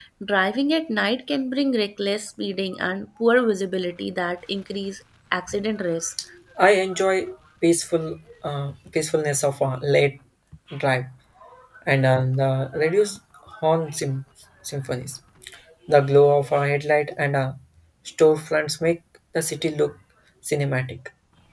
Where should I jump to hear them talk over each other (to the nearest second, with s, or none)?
none